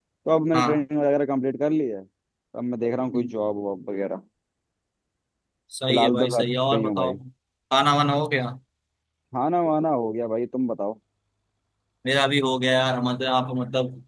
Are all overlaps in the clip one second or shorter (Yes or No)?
No